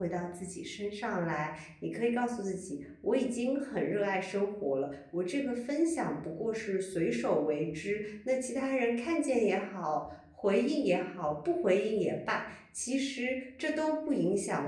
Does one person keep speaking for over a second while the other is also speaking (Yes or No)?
No